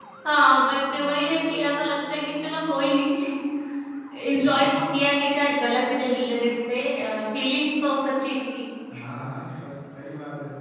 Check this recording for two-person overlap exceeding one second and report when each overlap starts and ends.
none

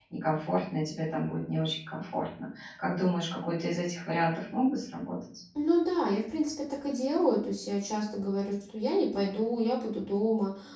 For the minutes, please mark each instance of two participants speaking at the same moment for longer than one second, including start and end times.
none

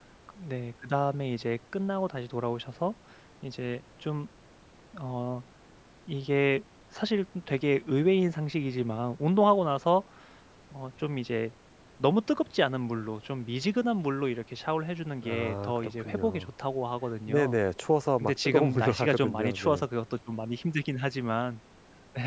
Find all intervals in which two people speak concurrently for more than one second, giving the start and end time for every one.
15.3-16.5, 18.2-19.8

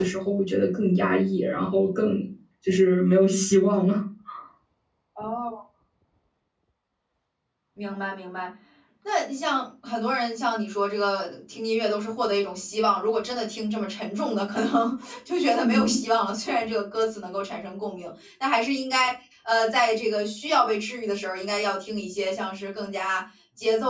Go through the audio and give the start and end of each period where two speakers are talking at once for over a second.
none

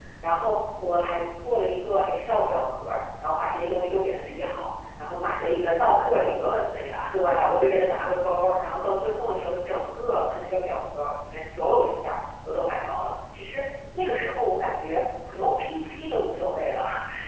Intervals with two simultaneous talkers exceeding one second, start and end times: 5.3-6.5

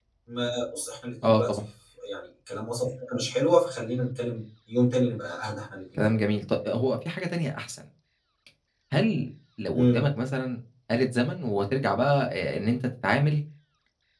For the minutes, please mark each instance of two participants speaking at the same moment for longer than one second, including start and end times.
none

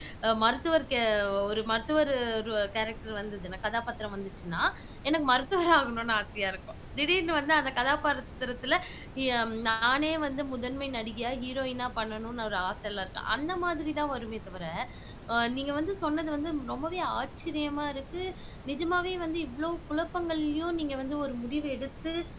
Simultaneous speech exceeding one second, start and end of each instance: none

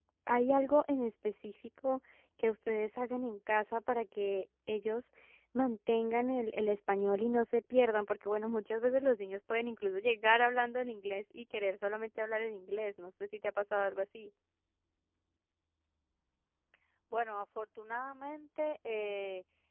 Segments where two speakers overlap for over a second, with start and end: none

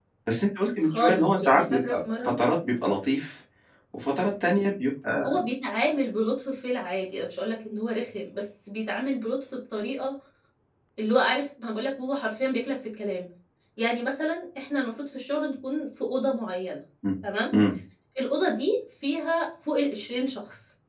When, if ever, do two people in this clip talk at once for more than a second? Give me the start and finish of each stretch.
0.8-2.4

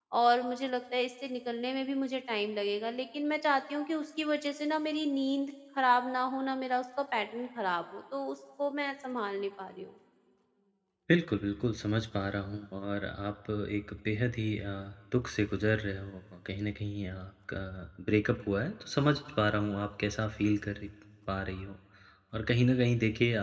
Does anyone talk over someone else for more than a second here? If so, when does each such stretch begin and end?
none

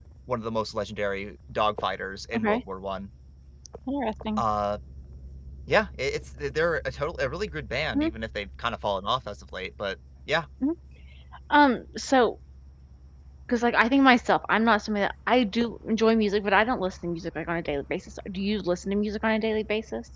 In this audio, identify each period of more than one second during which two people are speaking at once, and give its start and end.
none

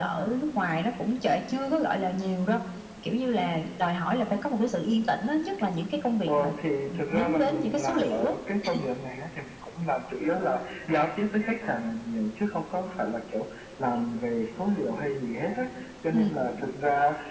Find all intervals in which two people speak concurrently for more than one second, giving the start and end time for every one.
6.9-8.3

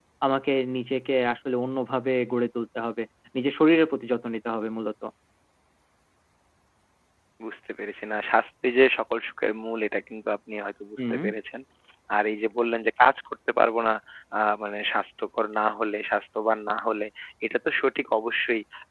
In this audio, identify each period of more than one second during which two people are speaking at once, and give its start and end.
none

